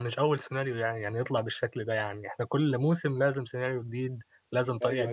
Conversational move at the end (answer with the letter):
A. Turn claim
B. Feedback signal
A